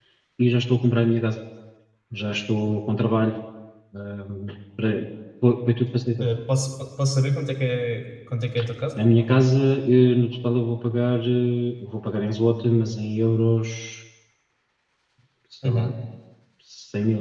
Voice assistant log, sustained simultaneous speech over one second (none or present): none